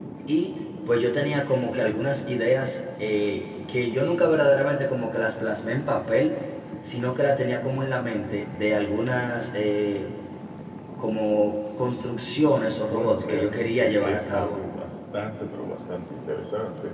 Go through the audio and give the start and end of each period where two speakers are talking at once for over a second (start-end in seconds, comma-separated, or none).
12.9-14.7